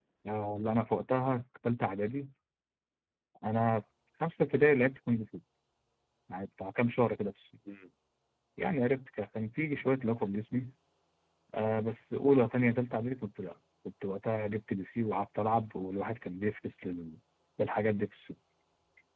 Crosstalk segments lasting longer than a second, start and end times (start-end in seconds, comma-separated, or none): none